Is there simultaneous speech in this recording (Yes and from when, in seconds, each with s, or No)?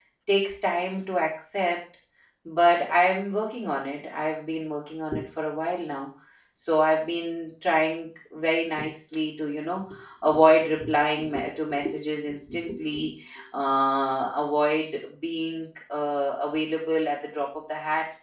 No